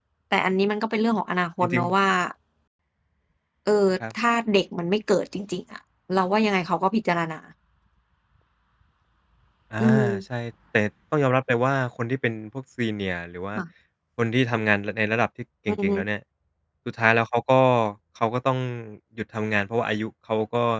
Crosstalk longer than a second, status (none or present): none